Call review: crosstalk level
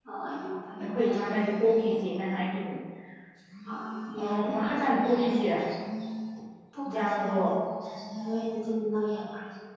present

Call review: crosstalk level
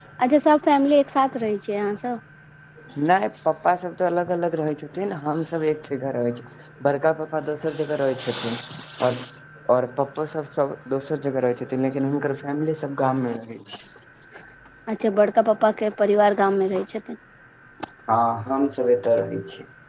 none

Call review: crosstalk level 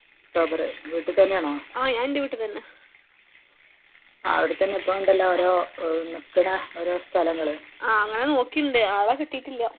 none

